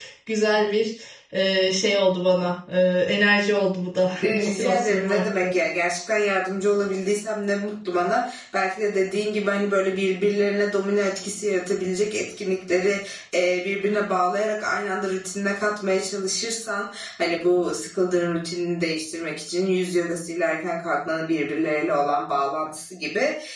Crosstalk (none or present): present